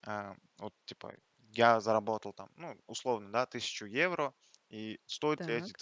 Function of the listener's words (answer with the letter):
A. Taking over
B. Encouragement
B